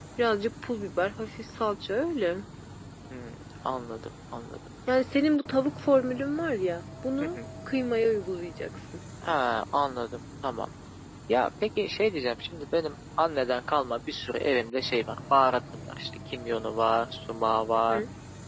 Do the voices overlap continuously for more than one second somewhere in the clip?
No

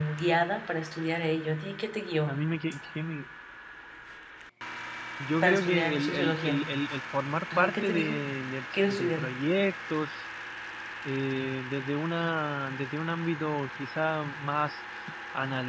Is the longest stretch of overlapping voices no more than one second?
No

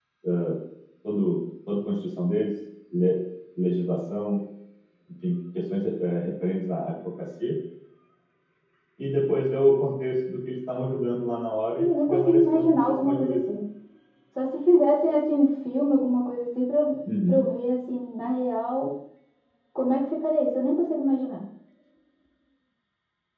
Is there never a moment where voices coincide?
No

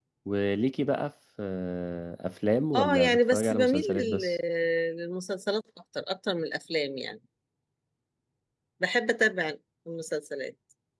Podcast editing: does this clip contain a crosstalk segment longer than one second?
Yes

